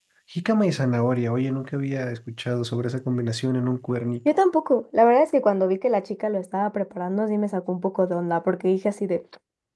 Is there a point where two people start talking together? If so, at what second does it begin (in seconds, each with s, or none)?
none